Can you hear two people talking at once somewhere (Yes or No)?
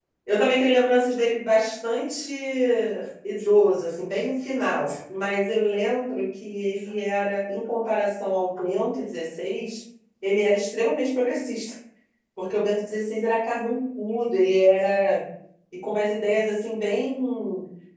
No